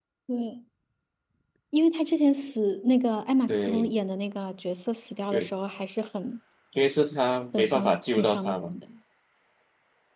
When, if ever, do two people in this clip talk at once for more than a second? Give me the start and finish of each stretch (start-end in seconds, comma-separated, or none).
7.5-8.7